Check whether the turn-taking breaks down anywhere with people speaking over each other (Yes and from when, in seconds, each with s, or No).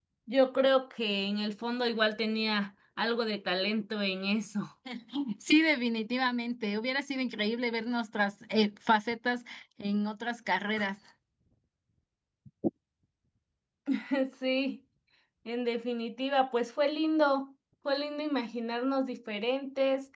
No